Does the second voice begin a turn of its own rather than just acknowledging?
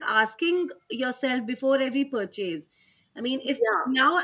No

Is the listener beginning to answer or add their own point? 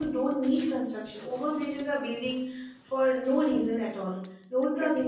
No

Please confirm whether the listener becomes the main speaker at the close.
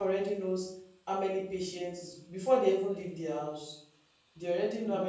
No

